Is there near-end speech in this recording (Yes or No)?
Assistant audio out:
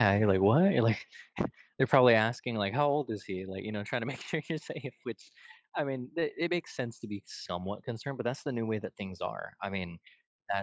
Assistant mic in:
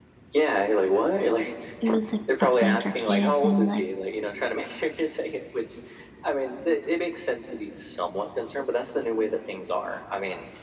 Yes